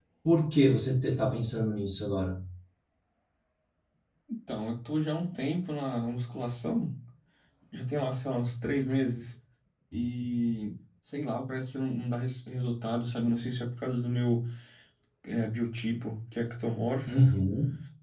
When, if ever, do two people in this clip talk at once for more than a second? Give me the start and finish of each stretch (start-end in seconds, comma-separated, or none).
none